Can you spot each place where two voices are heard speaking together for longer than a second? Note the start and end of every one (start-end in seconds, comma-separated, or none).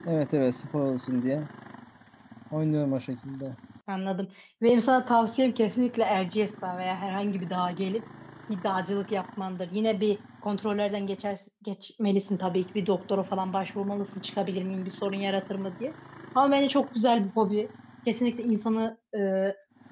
none